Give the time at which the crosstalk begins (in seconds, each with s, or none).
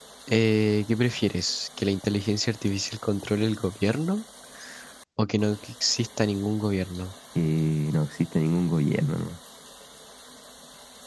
none